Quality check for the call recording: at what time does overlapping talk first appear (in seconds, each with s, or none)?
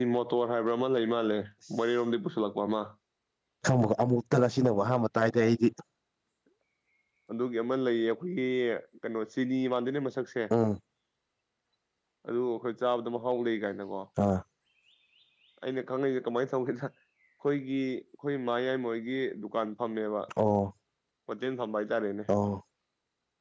none